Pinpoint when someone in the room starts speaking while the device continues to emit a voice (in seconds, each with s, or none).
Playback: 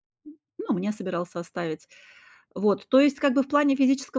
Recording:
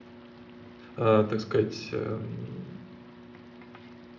0.9 s